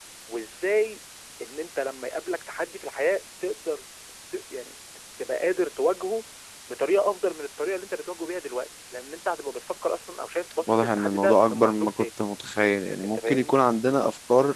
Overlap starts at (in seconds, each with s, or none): 10.7 s